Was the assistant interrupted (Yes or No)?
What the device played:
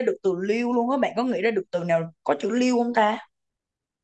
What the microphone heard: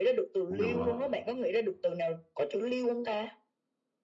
Yes